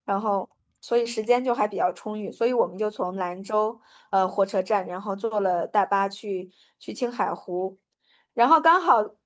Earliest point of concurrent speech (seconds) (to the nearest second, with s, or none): none